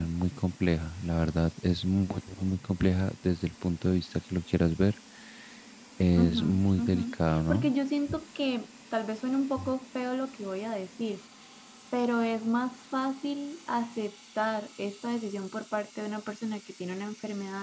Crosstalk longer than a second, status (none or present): present